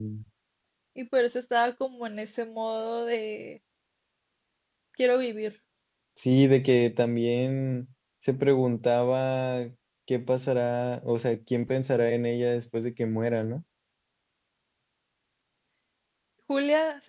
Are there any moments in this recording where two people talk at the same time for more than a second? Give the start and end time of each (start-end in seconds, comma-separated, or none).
none